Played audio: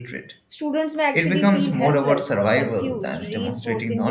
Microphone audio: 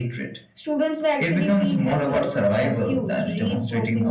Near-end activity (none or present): none